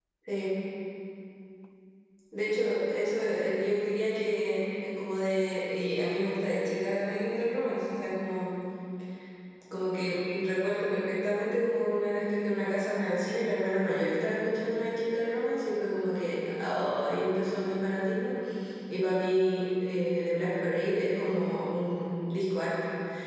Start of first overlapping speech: none

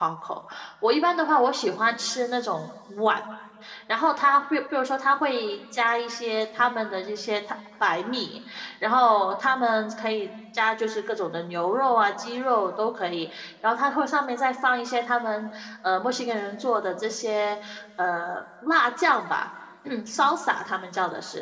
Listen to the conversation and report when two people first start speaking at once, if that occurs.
none

